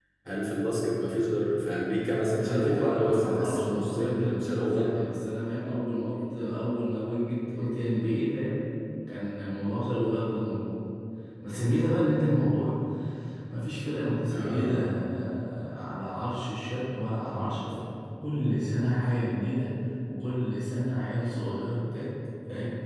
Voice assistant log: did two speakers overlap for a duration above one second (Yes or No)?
Yes